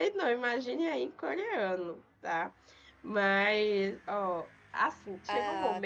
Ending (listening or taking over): listening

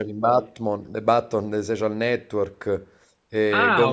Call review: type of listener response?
taking over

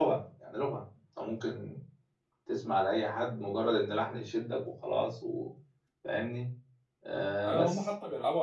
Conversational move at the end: taking over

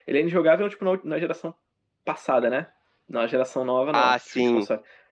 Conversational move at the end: listening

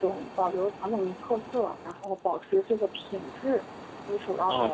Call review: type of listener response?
taking over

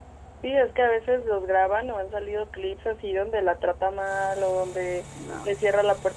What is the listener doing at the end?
listening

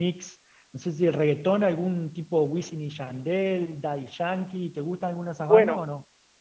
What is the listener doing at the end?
taking over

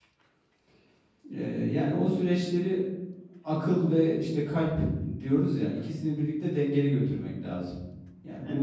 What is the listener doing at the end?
listening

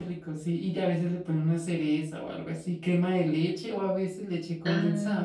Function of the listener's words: taking over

